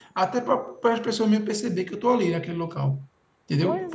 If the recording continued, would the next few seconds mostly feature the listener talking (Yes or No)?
No